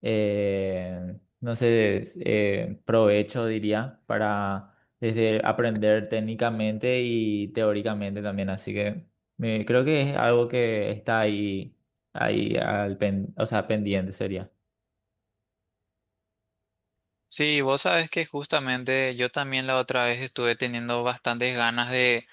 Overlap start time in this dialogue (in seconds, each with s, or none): none